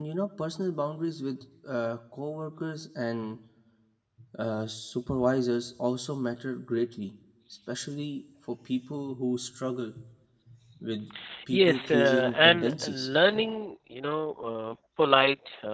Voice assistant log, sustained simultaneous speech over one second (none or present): present